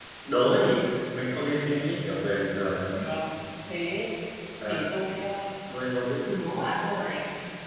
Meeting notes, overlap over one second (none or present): none